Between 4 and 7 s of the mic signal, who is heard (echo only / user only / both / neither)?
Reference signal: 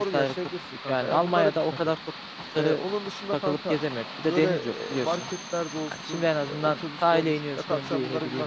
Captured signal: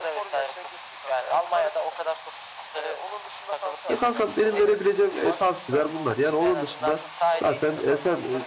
both